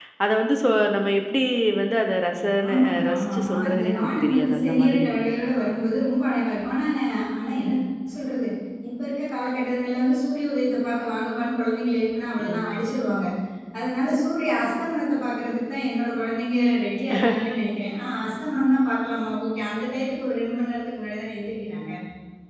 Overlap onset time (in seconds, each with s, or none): 2.7 s